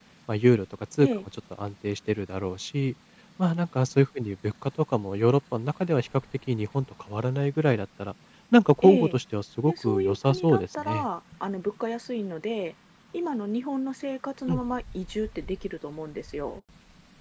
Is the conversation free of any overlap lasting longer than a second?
No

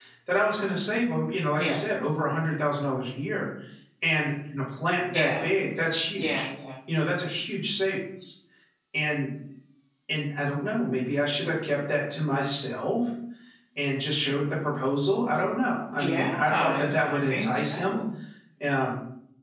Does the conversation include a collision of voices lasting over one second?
Yes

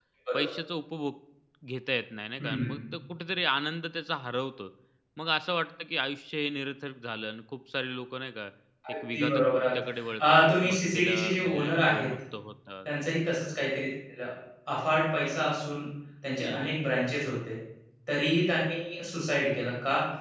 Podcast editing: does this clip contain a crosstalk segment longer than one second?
Yes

